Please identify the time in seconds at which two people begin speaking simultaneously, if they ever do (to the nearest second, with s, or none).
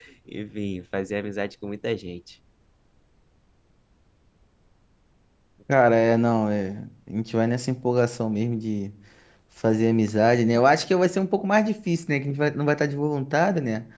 none